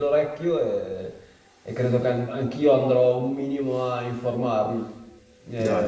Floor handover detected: No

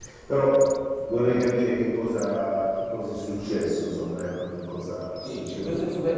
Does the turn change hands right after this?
Yes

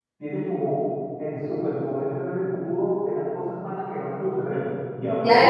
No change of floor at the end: No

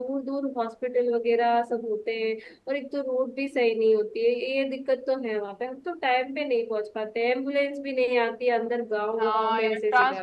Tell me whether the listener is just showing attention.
No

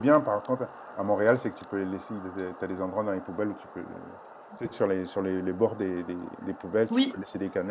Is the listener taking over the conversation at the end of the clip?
No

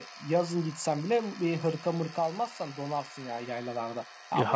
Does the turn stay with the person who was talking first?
No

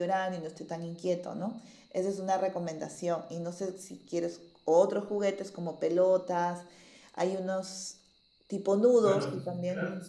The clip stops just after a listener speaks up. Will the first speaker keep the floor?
No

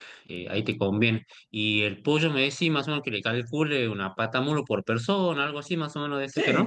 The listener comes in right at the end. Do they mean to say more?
Yes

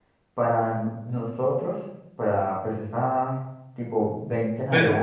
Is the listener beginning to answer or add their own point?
No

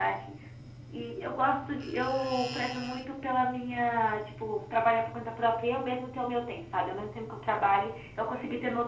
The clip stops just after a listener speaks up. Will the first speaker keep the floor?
Yes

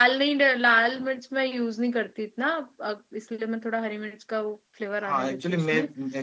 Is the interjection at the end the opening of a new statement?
Yes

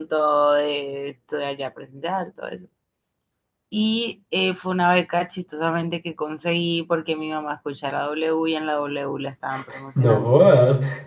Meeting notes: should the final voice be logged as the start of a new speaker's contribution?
Yes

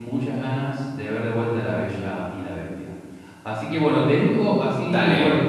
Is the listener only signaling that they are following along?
Yes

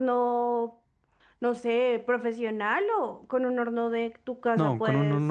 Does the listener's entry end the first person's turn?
Yes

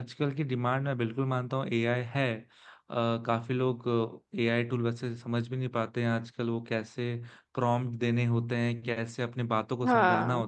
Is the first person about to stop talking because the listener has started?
No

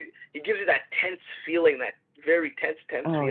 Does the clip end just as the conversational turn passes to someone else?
Yes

